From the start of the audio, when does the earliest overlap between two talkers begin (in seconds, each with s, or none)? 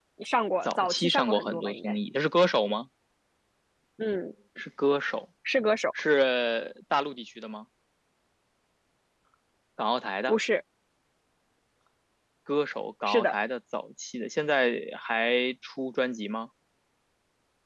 0.6 s